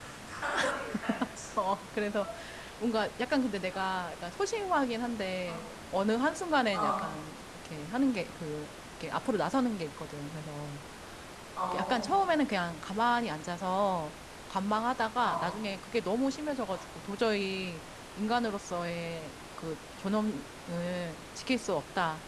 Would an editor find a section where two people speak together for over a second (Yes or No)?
No